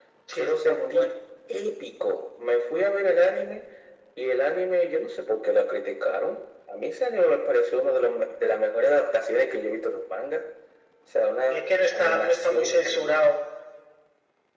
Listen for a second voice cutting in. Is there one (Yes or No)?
Yes